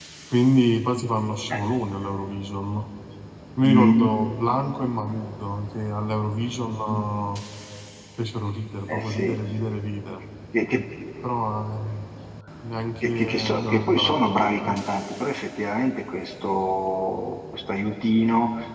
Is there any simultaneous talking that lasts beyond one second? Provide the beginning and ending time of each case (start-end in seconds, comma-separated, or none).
13.0-14.8